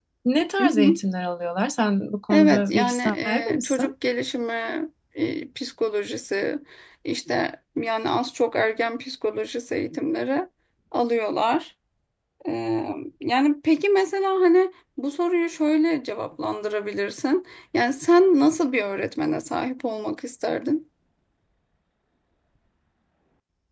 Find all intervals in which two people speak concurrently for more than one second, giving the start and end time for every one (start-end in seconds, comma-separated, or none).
2.3-3.9